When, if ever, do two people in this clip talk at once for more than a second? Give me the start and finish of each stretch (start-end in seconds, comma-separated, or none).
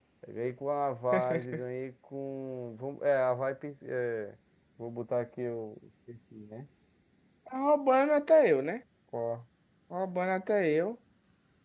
none